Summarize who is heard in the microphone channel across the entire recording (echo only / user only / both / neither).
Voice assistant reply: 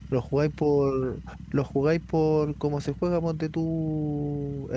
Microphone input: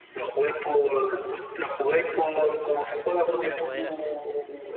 both